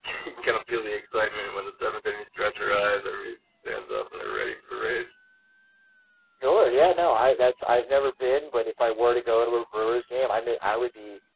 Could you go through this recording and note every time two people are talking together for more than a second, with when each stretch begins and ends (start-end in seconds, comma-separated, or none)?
none